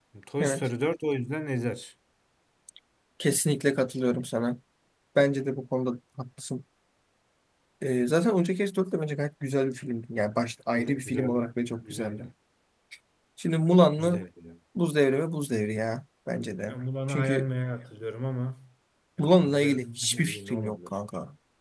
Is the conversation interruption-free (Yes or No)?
No